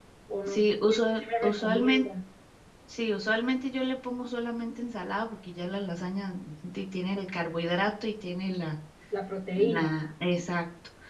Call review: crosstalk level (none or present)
present